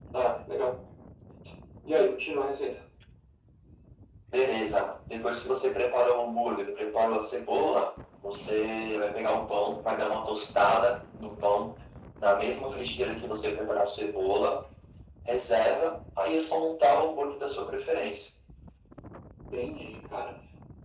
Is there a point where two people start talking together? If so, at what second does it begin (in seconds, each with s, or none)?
none